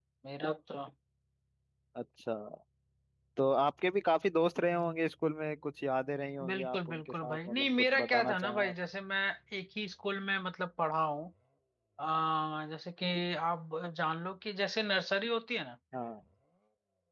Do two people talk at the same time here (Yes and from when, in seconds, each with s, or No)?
Yes, from 6.4 s